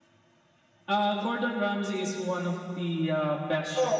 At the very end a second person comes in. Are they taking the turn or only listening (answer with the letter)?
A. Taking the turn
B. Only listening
A